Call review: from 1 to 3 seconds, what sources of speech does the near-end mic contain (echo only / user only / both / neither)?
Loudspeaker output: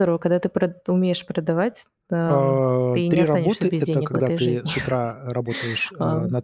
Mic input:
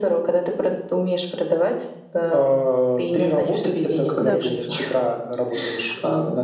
echo only